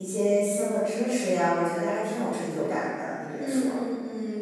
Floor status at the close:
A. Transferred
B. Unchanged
A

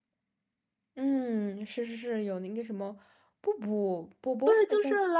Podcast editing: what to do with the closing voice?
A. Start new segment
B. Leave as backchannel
A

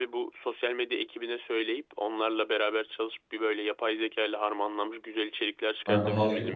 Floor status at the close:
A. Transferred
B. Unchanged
A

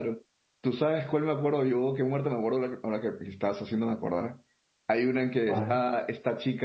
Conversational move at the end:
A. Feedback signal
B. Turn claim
A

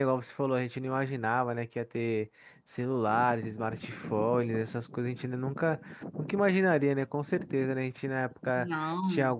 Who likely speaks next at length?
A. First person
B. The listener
A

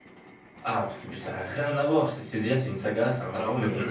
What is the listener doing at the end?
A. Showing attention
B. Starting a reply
B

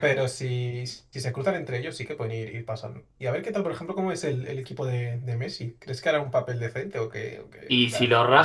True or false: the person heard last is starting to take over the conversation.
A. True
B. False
A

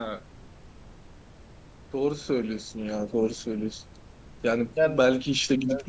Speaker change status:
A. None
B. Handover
A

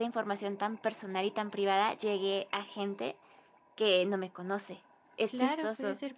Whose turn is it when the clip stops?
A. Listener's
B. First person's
A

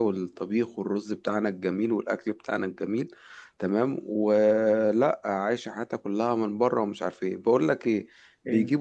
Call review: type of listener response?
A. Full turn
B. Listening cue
B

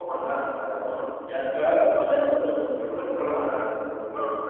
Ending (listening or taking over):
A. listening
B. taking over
B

